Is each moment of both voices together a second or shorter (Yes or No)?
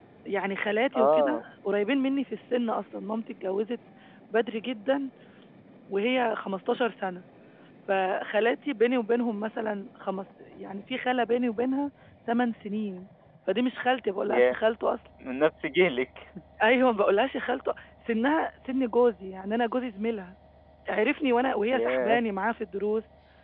Yes